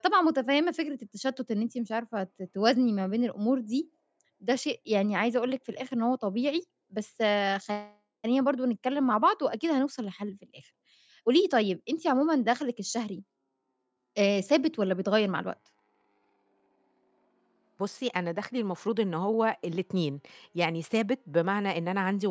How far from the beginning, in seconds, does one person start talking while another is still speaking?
none

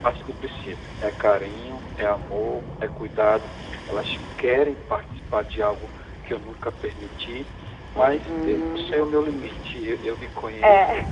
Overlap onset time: 8.0 s

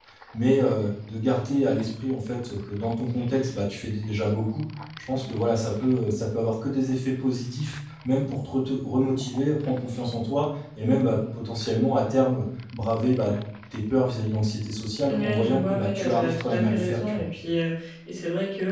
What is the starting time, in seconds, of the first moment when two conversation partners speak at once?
15.1 s

